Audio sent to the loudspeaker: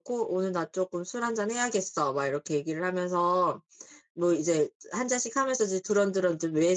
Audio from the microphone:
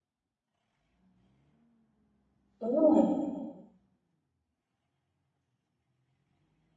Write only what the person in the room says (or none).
오.